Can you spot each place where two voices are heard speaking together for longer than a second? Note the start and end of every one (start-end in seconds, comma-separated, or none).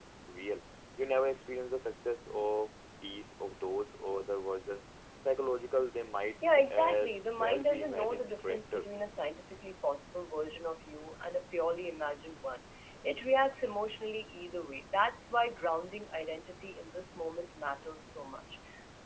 6.6-8.8